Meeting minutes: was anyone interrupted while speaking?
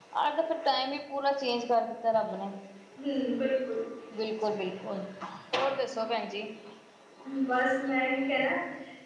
No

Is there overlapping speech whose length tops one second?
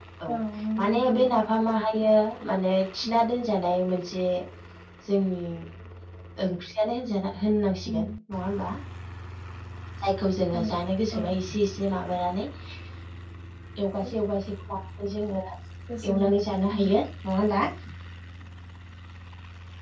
No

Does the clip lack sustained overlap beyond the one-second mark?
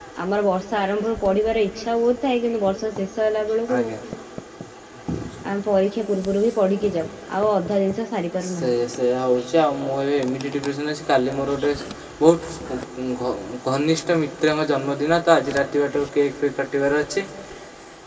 Yes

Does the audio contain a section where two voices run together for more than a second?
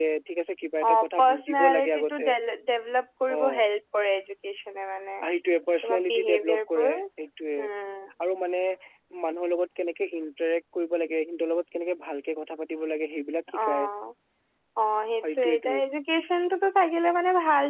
Yes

